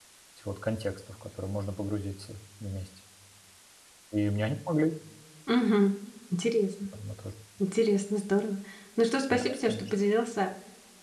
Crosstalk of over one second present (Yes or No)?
No